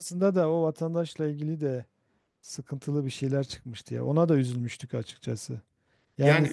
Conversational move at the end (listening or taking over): listening